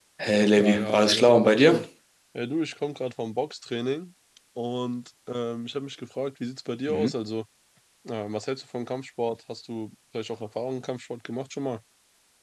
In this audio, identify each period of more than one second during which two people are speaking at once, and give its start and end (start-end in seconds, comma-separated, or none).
0.6-1.9